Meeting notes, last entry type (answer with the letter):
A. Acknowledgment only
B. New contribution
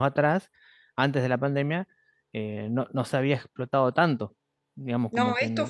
B